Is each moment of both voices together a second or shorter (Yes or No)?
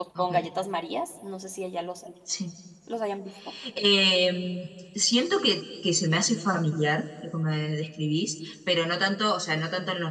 Yes